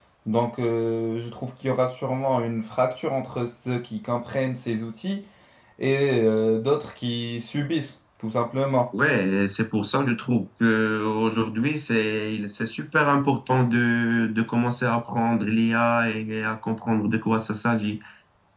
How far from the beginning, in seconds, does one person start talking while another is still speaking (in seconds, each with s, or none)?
none